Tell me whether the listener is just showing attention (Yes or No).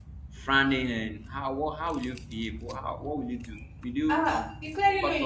No